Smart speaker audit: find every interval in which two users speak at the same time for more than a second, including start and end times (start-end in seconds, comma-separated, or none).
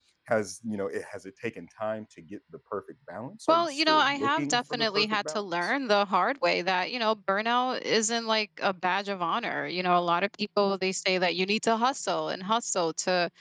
3.5-5.7